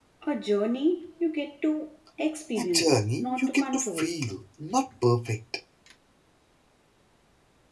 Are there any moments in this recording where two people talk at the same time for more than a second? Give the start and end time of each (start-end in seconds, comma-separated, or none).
2.6-4.1